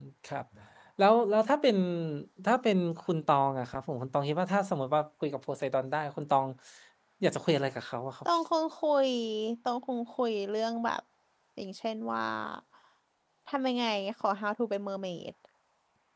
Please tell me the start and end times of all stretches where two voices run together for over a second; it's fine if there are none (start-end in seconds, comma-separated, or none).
none